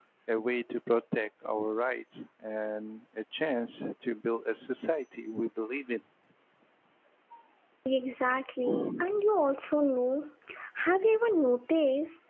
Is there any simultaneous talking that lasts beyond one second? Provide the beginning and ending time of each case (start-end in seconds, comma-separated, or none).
none